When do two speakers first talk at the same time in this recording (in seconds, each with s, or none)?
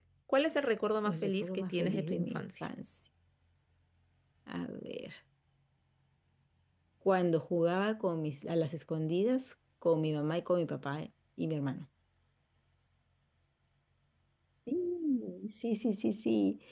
1.0 s